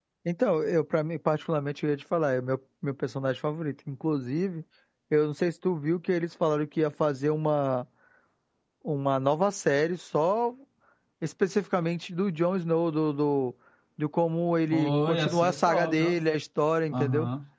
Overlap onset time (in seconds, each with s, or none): 14.7 s